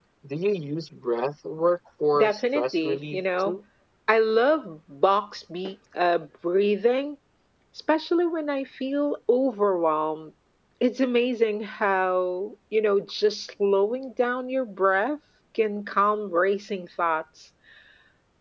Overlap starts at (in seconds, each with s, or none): 2.1 s